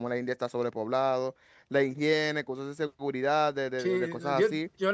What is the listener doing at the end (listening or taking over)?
taking over